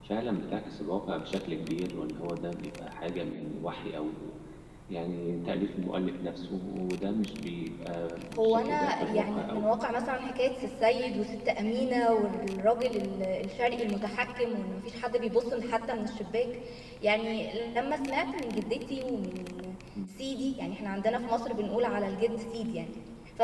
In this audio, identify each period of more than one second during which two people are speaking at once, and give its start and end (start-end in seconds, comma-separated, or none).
8.4-9.7